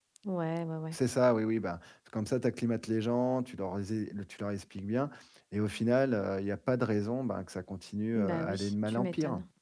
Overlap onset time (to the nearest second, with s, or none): 8 s